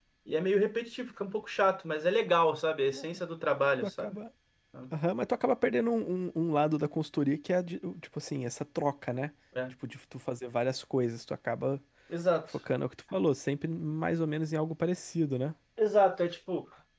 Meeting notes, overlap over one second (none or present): none